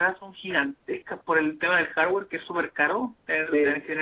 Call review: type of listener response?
listening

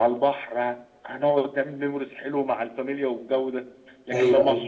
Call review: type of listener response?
listening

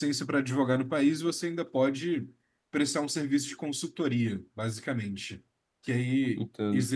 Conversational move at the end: listening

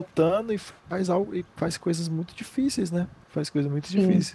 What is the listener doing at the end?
listening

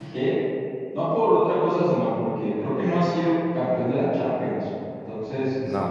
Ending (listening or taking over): listening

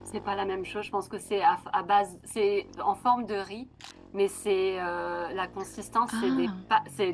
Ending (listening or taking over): listening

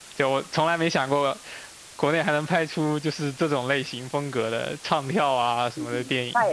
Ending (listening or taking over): taking over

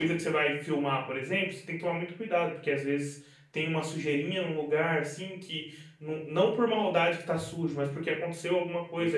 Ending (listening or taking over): listening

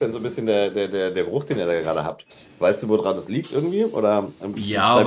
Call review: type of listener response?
taking over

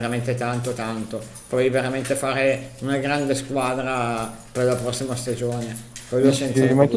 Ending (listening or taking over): taking over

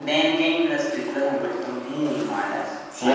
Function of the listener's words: taking over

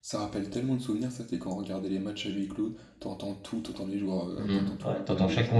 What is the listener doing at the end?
taking over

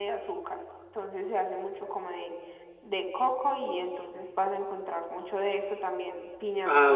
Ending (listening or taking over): listening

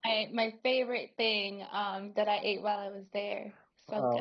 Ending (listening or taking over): taking over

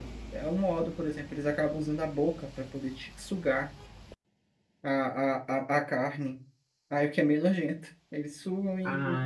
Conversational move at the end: taking over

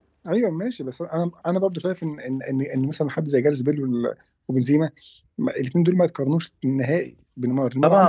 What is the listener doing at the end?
taking over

